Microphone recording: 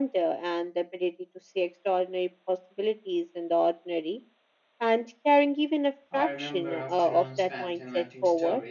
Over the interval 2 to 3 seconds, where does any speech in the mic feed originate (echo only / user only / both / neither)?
echo only